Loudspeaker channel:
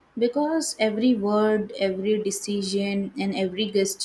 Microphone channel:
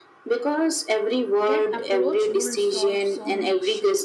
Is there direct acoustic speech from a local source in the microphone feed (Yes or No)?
Yes